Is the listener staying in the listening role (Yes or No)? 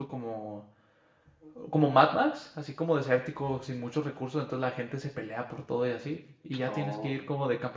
Yes